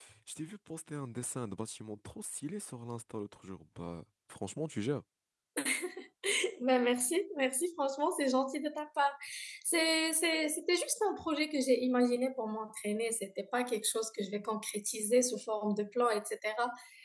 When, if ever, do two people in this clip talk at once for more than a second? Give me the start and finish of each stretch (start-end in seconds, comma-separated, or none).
none